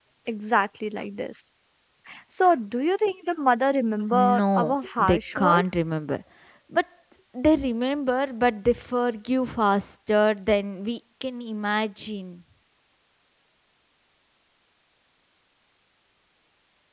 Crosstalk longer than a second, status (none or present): present